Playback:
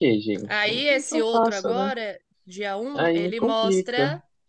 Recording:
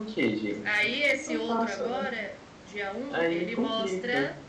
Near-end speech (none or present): none